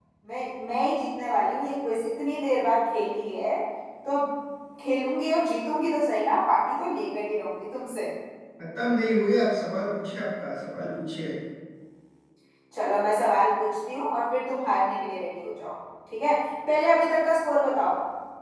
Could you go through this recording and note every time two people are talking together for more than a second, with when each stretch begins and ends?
none

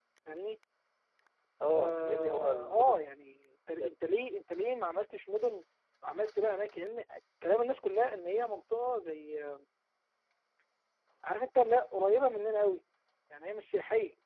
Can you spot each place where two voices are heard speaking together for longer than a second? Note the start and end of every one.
1.8-3.0

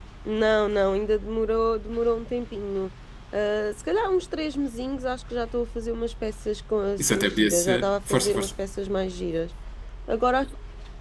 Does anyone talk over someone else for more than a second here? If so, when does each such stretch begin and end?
7.0-8.5

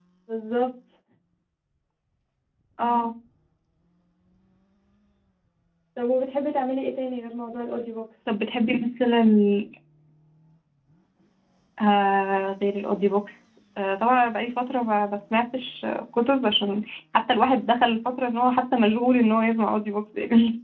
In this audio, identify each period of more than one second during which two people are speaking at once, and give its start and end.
none

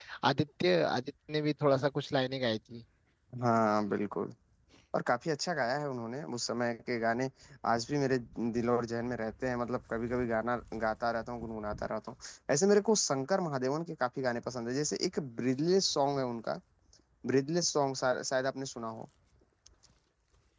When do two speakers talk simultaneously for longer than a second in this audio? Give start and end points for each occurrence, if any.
none

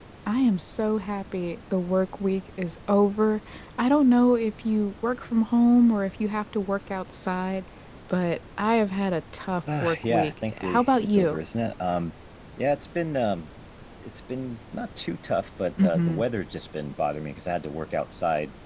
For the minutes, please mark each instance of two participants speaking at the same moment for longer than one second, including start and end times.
9.8-11.4

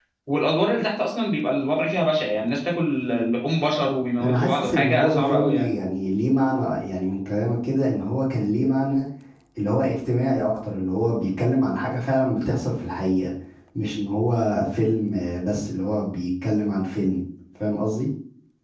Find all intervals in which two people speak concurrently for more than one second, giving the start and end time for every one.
4.2-5.7

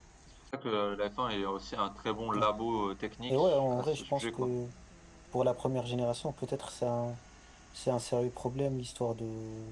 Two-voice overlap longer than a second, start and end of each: 3.3-4.5

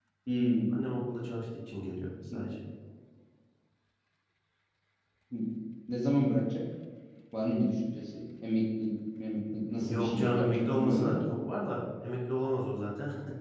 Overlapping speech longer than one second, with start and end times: 9.9-11.2

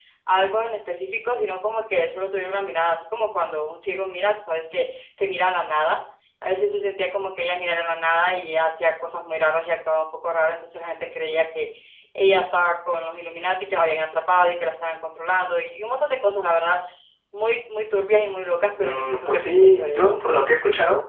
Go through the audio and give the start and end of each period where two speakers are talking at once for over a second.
18.8-20.0

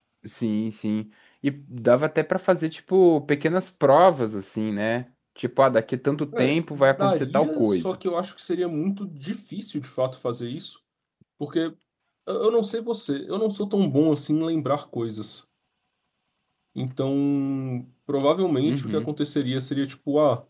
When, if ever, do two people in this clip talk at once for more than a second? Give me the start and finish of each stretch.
6.4-8.0

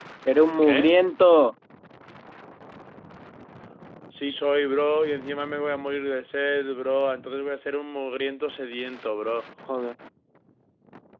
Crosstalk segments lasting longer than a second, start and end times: none

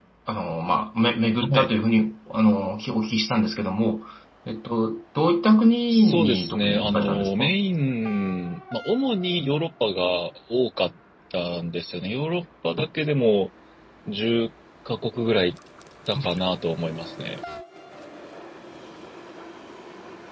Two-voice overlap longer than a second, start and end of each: 5.9-7.5

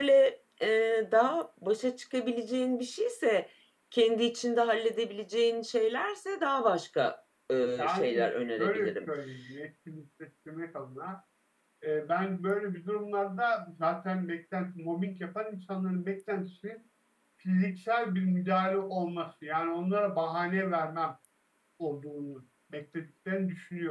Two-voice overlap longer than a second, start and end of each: 7.8-9.1

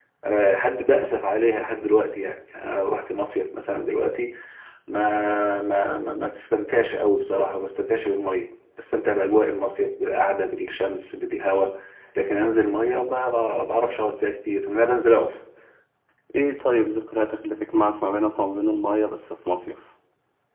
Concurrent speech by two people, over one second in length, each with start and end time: none

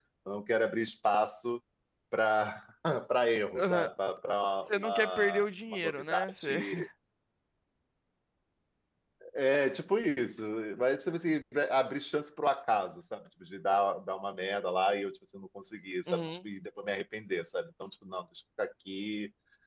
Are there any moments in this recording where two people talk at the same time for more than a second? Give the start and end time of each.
4.7-6.6

